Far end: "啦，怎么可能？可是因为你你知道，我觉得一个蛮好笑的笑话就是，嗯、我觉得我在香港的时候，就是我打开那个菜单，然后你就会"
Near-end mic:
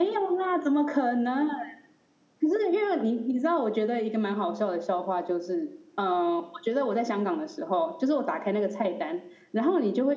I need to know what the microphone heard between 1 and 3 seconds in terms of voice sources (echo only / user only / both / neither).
echo only